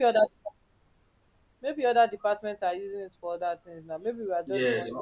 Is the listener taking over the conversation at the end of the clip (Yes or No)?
Yes